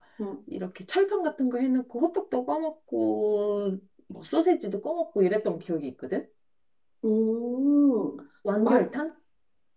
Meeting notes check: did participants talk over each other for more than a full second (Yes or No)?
No